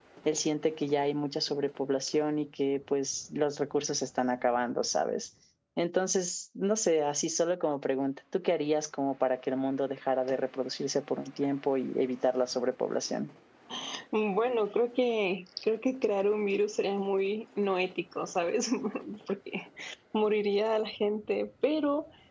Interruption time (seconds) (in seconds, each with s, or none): none